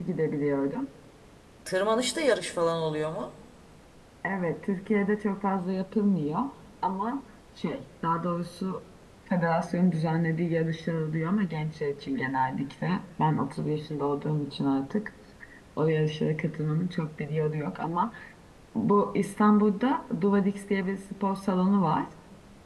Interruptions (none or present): none